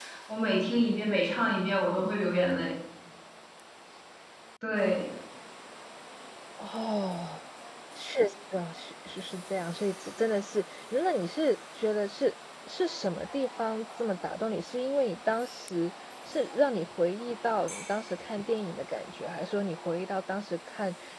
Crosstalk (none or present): none